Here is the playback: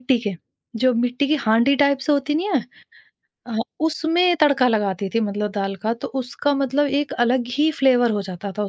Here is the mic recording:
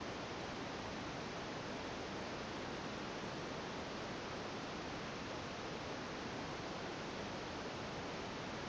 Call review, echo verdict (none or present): none